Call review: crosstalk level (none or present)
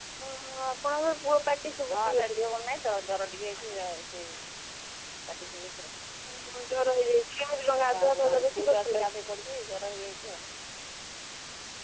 present